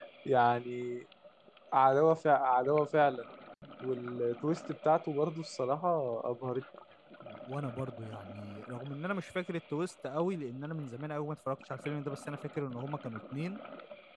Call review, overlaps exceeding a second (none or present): none